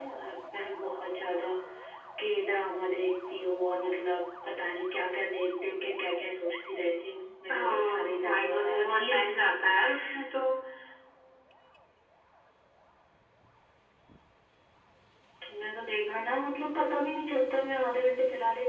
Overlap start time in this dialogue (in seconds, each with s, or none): 7.5 s